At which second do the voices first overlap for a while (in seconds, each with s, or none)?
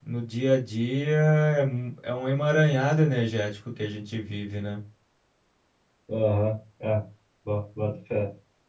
none